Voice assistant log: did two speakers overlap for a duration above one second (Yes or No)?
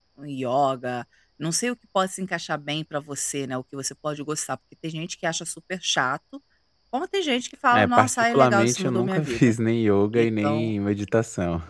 Yes